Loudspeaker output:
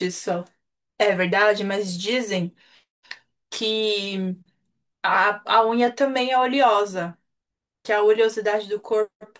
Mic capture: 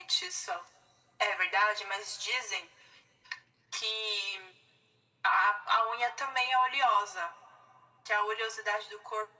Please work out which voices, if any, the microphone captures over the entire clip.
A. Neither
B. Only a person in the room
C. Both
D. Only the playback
D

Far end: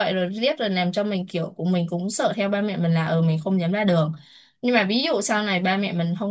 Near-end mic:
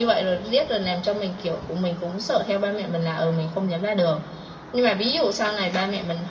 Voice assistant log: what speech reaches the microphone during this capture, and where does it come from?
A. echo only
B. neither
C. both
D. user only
A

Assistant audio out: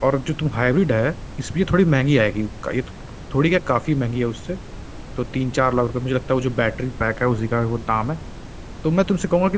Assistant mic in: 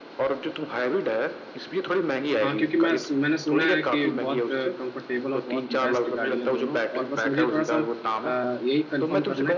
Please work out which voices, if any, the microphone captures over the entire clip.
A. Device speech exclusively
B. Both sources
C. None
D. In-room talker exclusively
B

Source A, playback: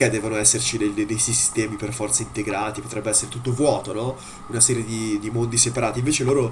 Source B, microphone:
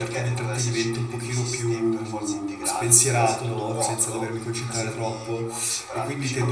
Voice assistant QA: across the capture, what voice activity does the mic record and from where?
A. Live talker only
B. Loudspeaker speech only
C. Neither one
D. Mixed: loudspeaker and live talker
D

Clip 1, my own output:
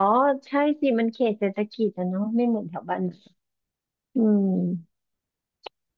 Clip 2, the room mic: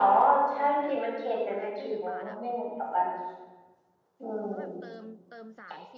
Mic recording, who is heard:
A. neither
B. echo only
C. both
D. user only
C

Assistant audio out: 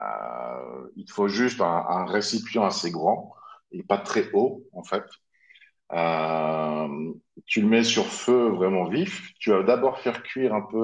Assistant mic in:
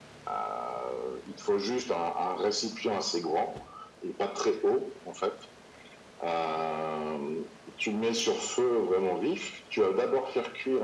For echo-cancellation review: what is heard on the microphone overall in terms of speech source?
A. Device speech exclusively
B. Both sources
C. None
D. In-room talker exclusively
A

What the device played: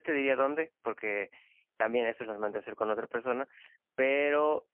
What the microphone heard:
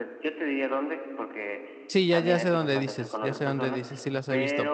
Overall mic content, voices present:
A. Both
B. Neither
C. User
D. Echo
A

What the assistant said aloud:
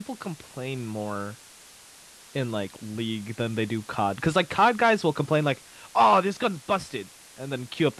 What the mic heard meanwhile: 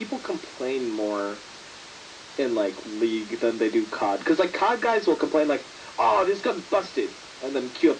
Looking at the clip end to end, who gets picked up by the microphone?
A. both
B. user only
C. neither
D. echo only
D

